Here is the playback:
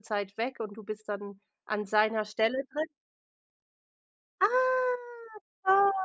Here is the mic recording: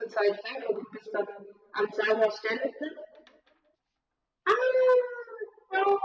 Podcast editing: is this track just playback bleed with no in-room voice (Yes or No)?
Yes